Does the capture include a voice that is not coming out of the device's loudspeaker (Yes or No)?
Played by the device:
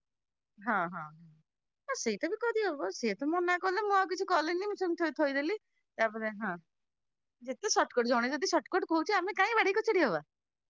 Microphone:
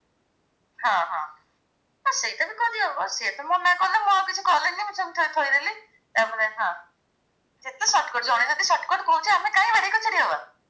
No